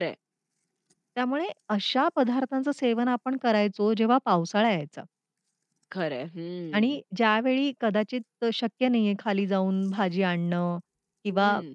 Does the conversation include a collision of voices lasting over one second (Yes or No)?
No